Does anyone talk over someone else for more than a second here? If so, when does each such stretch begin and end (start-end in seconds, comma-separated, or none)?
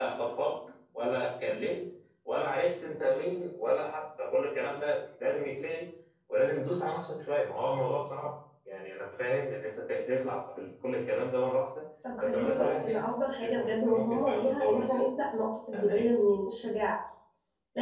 12.2-15.1